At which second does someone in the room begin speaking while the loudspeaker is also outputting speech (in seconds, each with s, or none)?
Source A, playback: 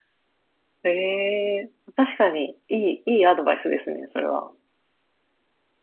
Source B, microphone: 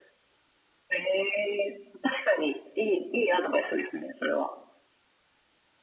none